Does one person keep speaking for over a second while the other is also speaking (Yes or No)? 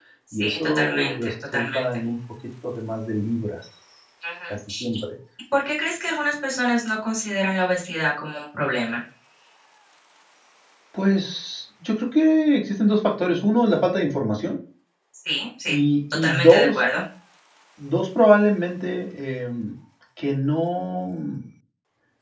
Yes